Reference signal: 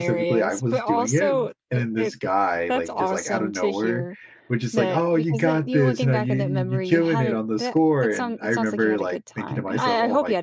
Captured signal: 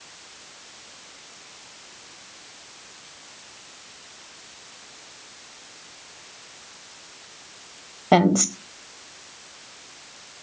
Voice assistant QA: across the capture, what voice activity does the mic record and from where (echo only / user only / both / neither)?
user only